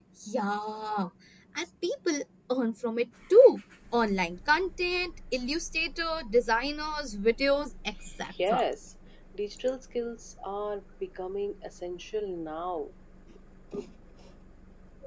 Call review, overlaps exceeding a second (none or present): none